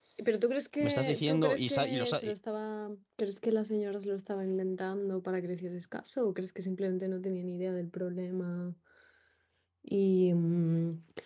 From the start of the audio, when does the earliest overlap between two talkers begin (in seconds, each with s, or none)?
0.8 s